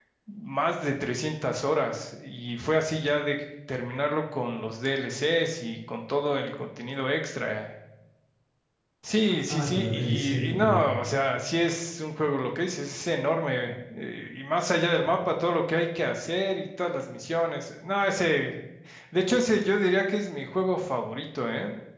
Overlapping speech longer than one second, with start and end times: 9.2-10.8

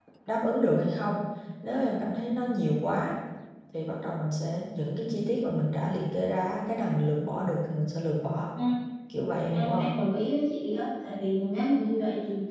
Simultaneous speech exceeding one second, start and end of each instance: none

